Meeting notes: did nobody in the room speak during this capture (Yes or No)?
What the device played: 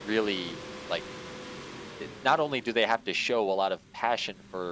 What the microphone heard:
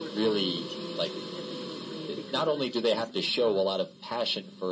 No